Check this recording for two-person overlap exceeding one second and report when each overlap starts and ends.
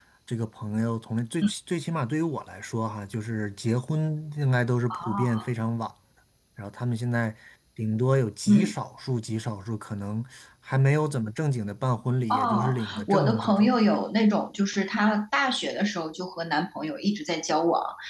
12.3-13.7

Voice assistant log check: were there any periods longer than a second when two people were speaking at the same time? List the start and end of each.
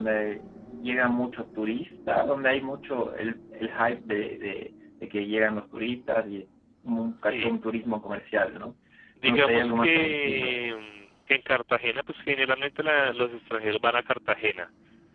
9.2-10.7

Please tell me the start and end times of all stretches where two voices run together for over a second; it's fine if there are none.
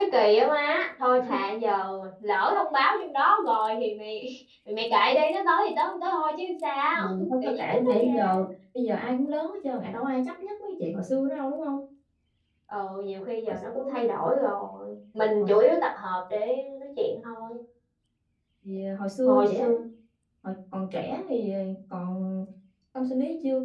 6.9-8.4

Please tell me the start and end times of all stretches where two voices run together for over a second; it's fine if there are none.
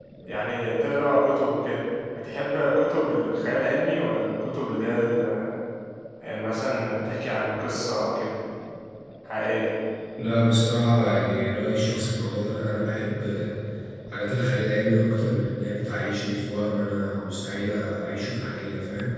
none

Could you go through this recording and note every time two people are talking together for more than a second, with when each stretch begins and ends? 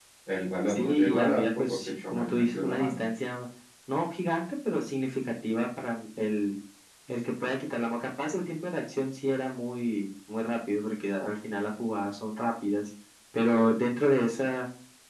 0.7-3.0

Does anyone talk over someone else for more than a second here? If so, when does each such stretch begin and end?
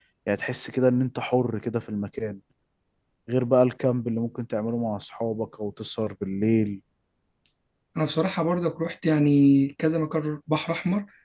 none

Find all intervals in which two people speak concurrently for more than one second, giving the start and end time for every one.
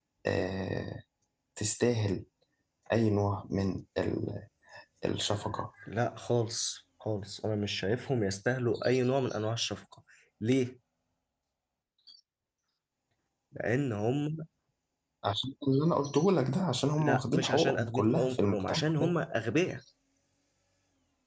17.0-19.1

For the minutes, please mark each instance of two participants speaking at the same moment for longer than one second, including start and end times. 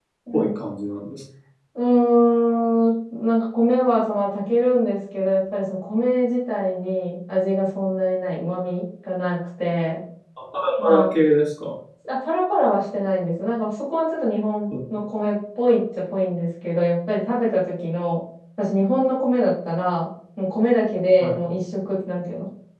none

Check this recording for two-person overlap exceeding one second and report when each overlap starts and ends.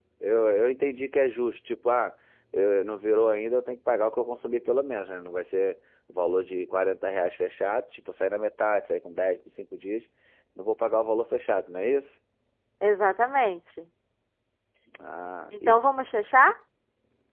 none

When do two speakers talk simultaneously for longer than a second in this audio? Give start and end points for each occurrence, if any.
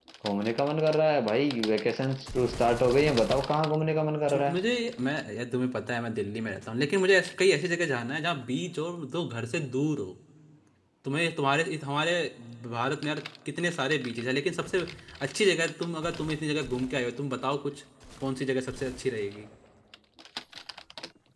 none

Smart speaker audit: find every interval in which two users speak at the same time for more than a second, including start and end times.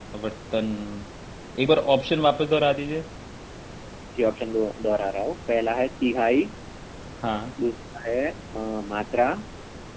none

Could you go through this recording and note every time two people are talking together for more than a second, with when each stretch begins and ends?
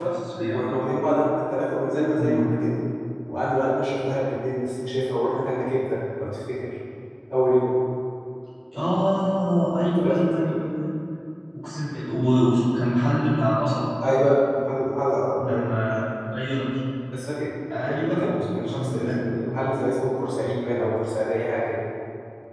17.9-19.2

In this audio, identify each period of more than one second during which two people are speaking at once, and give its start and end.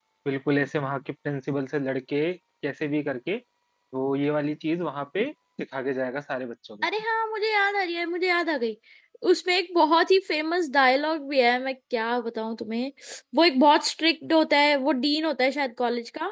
none

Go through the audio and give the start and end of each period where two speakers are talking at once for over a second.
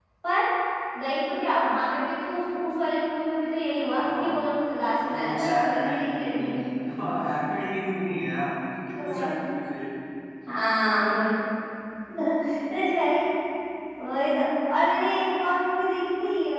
5.1-6.5

